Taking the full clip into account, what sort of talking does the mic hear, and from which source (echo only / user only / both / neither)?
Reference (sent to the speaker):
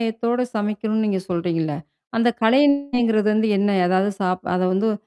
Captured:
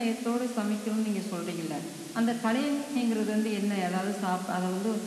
echo only